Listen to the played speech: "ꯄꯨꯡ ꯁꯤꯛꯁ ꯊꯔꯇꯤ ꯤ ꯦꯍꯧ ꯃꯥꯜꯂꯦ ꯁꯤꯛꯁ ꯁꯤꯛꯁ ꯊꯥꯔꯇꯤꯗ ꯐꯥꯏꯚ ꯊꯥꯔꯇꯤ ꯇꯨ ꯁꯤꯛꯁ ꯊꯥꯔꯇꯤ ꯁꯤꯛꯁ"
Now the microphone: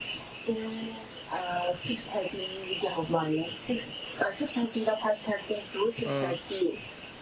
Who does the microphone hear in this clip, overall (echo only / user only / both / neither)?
both